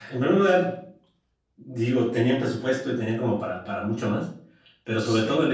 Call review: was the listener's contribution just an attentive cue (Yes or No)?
Yes